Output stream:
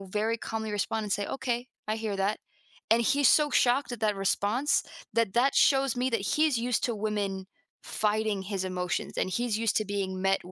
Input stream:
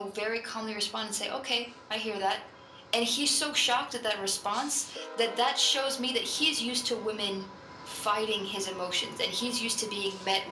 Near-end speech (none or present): none